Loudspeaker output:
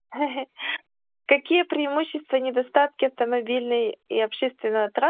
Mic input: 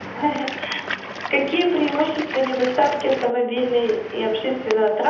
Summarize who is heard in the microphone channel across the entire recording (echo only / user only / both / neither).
echo only